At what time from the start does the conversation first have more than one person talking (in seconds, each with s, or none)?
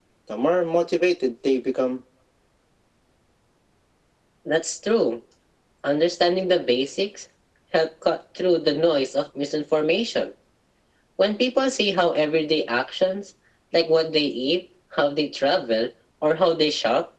none